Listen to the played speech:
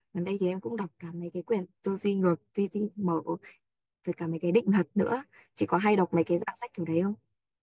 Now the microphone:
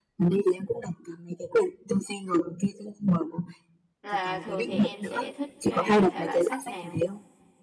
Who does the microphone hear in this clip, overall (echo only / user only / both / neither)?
both